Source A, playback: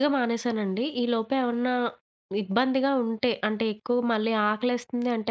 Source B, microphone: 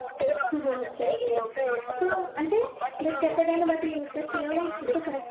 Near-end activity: present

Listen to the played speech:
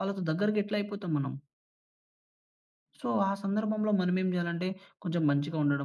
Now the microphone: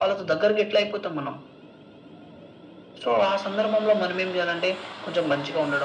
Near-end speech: none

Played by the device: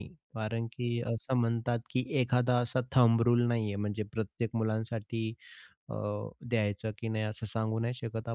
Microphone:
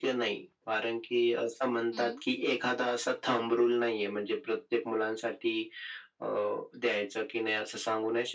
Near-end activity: present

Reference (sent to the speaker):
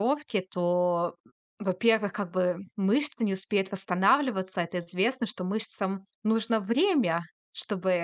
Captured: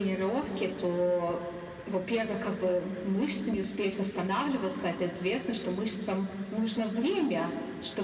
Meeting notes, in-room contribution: none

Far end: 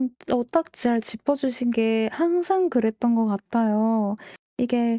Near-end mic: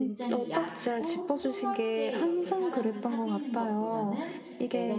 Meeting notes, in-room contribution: present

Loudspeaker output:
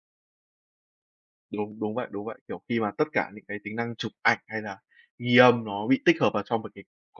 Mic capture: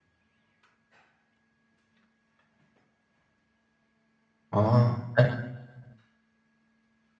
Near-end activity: present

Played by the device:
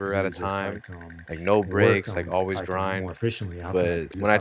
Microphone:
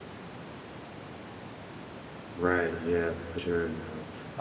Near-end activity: present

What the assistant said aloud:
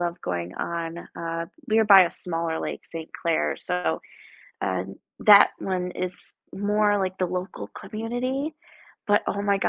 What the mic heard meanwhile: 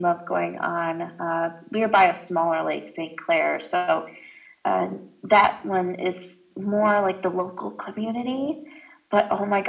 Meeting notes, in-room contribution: none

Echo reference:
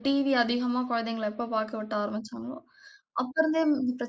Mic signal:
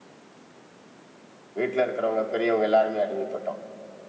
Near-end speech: present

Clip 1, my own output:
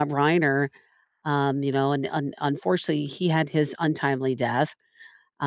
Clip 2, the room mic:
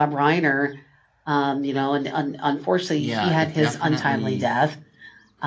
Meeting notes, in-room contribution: present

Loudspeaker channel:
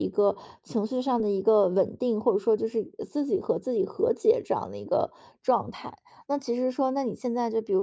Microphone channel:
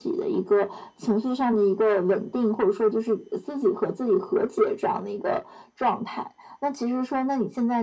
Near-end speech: none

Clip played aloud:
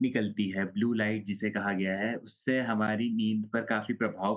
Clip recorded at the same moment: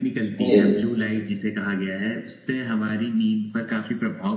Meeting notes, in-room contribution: present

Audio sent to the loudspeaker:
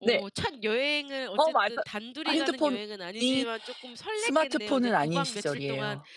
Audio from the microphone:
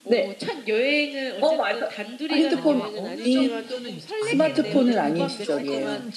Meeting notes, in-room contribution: present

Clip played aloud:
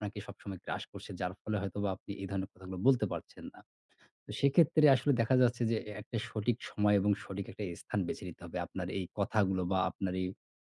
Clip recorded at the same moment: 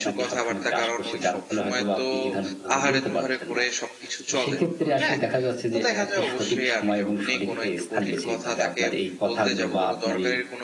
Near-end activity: present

